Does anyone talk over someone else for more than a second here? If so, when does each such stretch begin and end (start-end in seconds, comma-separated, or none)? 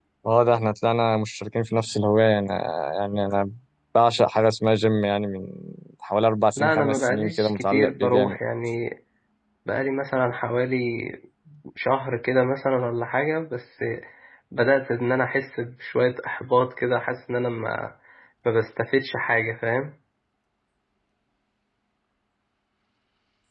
6.6-8.4